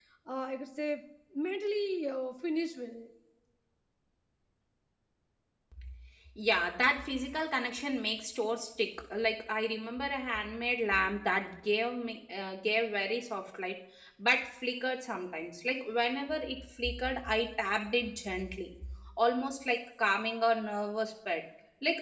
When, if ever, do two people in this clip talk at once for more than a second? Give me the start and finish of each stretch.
none

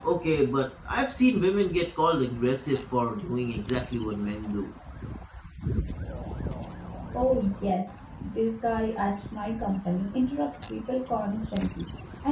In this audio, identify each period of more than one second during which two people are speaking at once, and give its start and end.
none

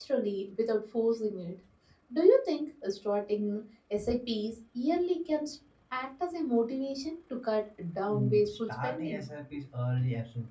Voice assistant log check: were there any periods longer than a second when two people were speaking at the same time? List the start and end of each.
8.1-9.3

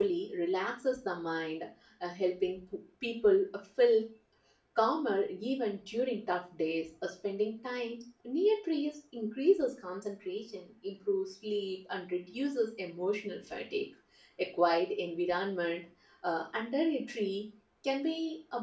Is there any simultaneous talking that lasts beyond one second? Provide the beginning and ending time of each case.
none

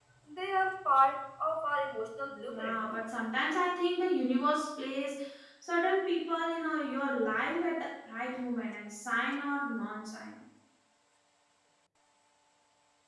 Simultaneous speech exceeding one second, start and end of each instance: none

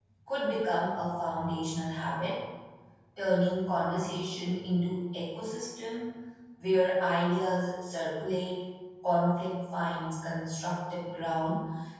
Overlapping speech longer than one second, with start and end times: none

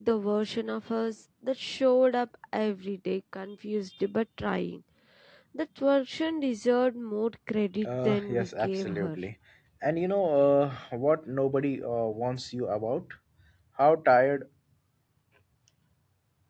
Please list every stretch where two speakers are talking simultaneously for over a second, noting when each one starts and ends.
7.8-9.2

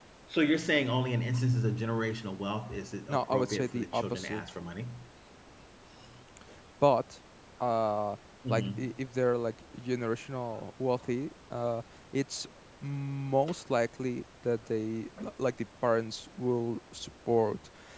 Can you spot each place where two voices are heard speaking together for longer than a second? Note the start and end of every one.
3.1-4.4

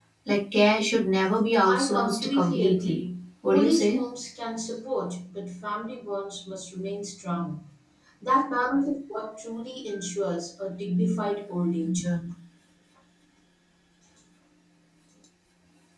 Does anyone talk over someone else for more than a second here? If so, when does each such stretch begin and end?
1.6-3.0

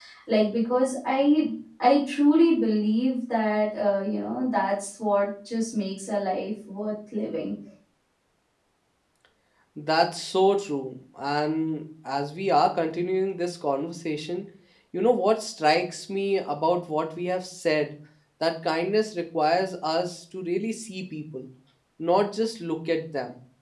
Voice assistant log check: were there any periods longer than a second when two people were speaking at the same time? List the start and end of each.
none

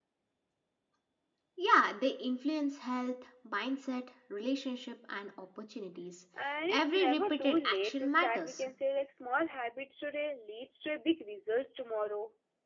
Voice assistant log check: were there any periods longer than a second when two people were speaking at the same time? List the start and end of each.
6.7-8.7

